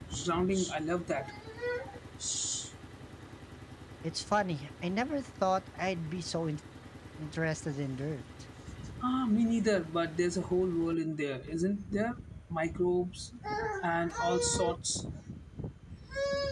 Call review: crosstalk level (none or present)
none